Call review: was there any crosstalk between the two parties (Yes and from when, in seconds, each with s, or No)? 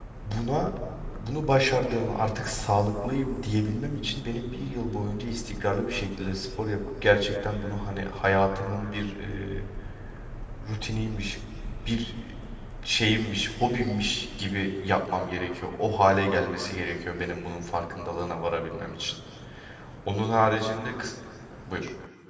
No